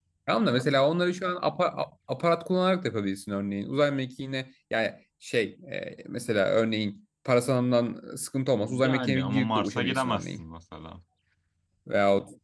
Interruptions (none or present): present